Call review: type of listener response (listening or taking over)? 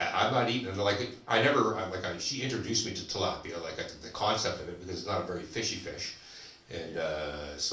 listening